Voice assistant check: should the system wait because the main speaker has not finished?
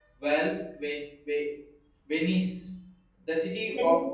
Yes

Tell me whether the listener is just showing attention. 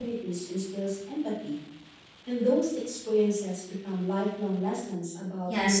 No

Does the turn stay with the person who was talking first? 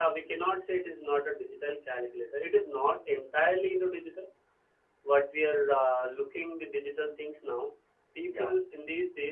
Yes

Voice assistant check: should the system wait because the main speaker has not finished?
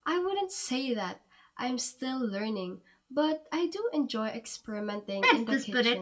No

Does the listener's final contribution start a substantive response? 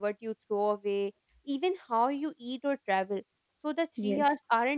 No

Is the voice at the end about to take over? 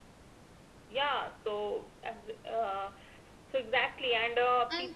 No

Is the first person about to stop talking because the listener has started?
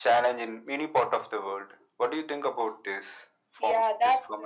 Yes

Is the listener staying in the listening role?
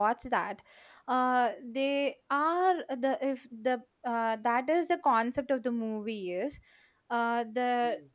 Yes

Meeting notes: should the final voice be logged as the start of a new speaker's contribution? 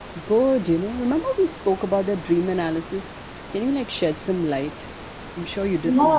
Yes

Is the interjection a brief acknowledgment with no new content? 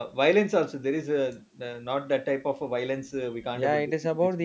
No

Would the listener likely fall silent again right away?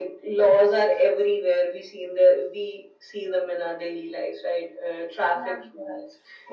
No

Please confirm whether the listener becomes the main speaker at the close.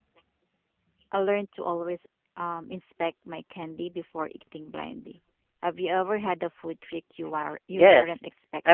Yes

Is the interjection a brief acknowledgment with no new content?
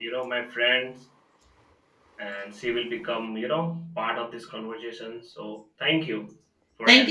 No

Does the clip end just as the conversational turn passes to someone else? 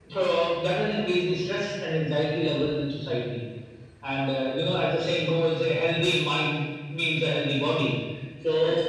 No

